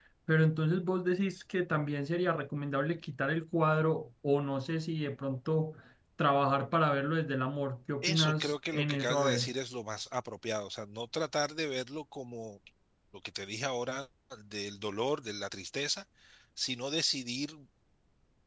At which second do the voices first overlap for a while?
8.0 s

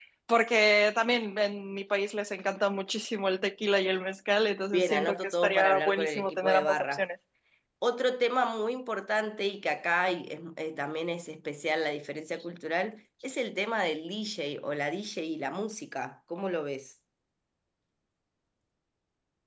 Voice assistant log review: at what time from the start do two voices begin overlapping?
4.7 s

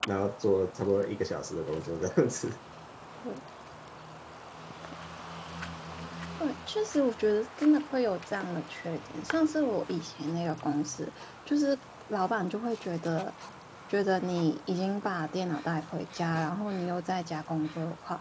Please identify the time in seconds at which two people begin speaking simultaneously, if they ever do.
none

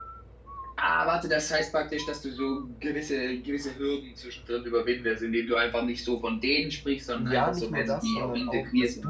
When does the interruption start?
7.2 s

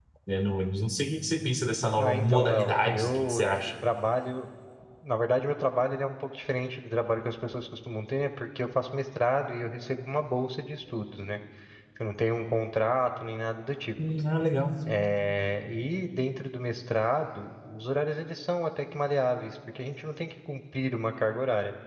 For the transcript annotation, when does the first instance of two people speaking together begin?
2.0 s

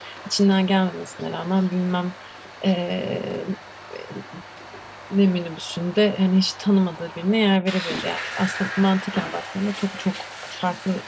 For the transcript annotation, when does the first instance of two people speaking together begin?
none

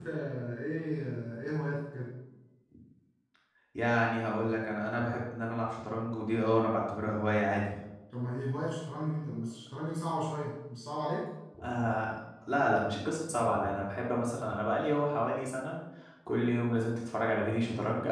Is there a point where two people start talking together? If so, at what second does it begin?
none

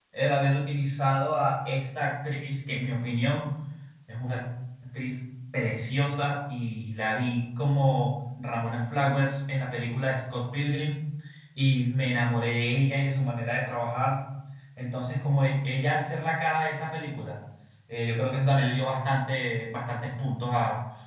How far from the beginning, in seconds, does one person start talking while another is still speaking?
none

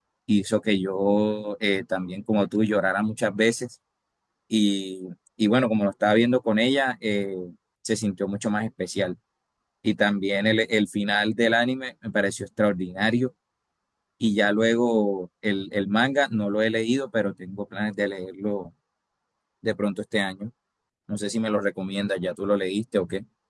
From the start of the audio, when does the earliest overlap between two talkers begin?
none

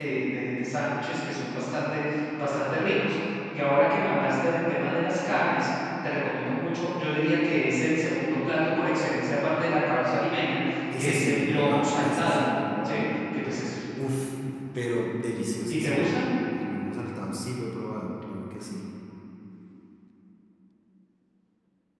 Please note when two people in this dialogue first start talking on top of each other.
11.0 s

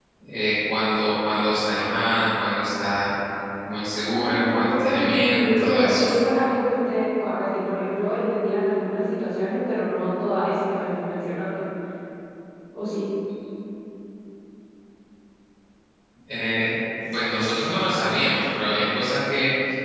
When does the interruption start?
4.0 s

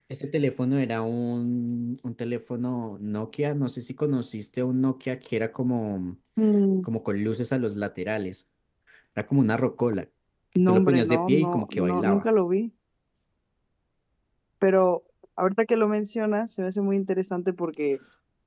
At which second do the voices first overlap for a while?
10.7 s

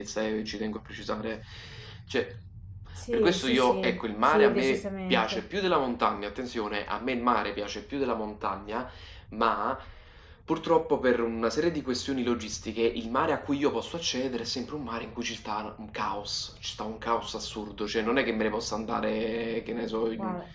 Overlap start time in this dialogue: 3.1 s

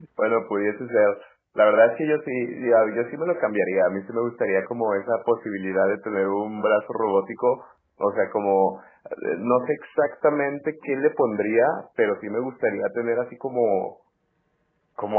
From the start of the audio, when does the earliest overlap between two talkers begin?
none

